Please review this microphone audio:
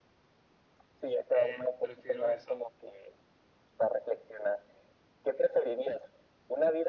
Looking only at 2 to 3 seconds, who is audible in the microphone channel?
both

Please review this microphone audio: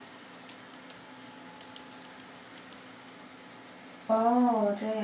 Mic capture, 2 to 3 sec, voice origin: neither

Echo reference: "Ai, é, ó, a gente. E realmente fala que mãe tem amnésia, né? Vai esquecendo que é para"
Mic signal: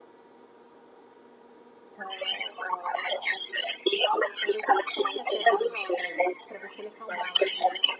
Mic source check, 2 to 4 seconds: echo only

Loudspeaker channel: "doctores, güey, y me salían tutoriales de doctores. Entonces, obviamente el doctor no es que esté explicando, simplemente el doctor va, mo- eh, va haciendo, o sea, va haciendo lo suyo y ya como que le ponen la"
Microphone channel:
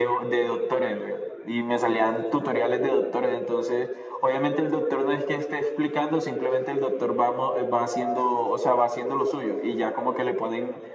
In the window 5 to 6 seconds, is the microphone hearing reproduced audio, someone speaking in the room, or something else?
echo only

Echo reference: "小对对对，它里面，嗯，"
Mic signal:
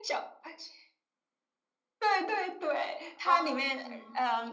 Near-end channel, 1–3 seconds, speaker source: echo only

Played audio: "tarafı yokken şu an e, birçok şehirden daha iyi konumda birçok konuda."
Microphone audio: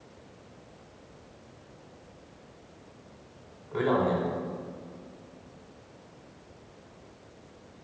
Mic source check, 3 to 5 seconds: user only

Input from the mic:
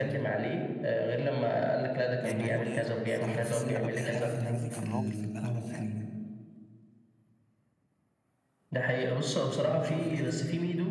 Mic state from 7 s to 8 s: neither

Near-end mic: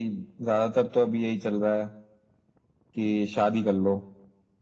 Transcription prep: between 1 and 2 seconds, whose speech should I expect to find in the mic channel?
echo only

